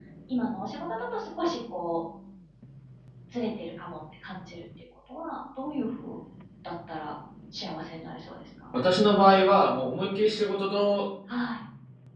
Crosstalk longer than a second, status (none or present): none